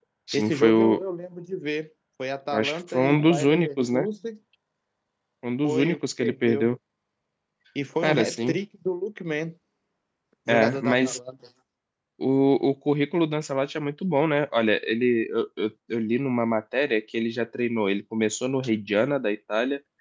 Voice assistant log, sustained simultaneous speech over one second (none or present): present